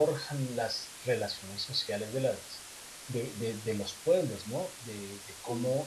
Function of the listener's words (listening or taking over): listening